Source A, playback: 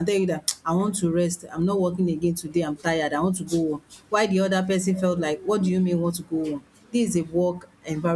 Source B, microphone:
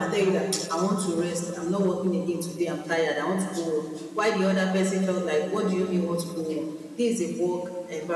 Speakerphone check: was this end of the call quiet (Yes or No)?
Yes